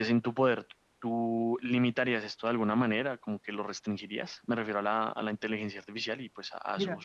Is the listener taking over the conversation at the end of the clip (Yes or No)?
Yes